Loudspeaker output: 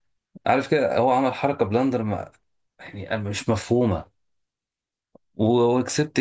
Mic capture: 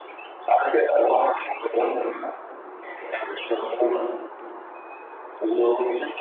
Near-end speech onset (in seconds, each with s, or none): none